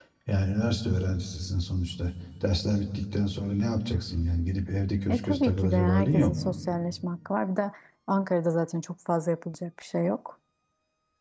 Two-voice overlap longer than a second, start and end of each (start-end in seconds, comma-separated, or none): 5.1-6.3